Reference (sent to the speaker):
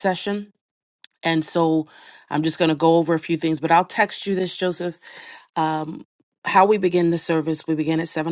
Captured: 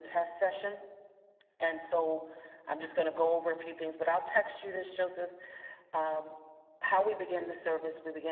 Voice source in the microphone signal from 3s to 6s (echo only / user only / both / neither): echo only